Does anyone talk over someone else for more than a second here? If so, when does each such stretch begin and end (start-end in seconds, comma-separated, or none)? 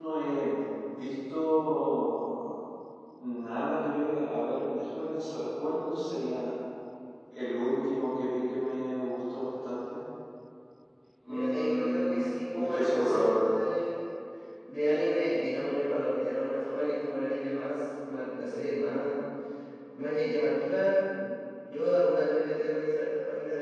11.3-13.3